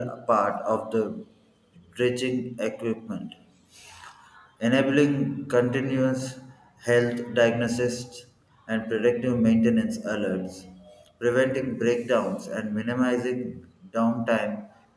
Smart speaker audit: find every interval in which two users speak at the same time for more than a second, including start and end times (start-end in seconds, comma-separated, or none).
none